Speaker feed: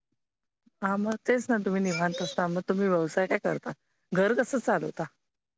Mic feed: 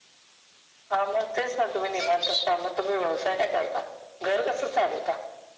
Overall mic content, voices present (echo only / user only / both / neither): echo only